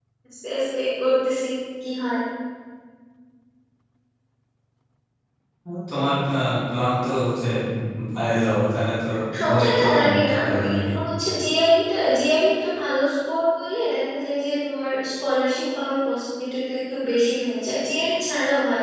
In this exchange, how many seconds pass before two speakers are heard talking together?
9.4 s

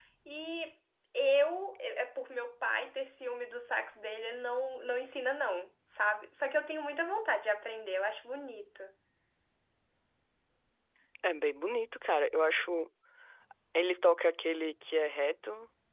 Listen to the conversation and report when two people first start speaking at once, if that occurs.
none

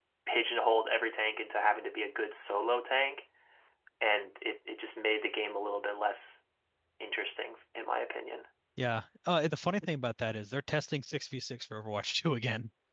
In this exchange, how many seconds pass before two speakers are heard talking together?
none

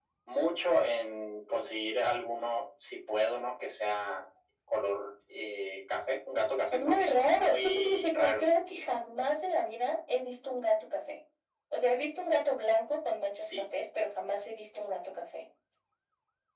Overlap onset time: 6.6 s

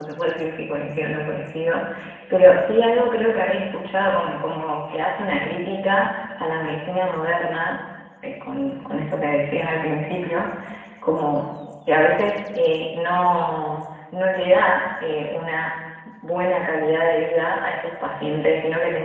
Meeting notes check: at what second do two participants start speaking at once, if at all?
none

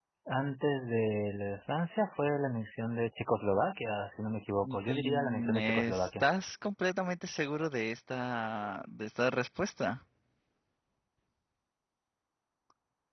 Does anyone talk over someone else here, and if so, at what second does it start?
4.6 s

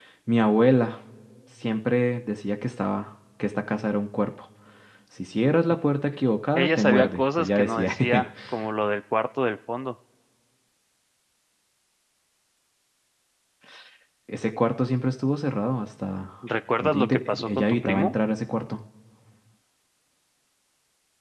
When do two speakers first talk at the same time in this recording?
6.6 s

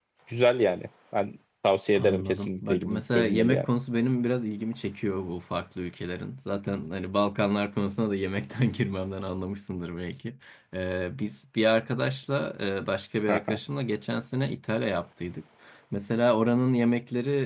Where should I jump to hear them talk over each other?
2.0 s

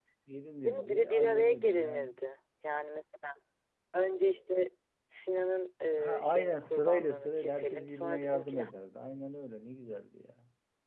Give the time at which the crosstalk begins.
0.6 s

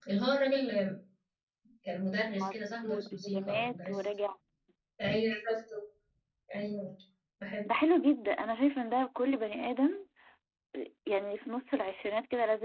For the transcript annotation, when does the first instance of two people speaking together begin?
2.4 s

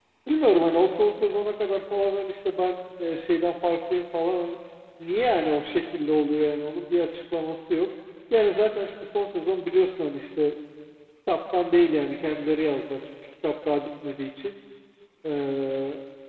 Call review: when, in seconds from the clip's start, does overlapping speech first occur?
none

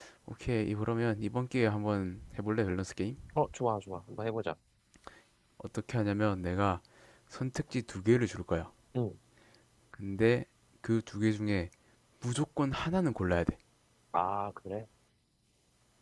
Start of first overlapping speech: none

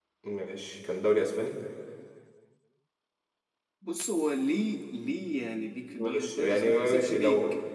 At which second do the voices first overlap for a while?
5.9 s

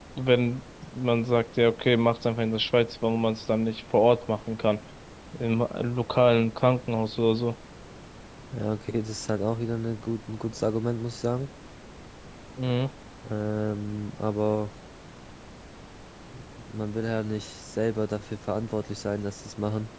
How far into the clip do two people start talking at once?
none

